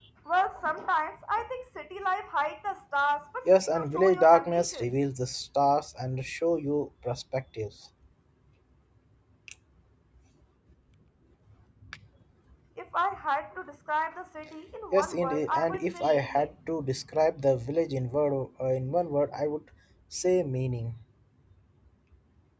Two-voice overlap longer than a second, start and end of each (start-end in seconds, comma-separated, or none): 3.5-4.9, 14.9-16.5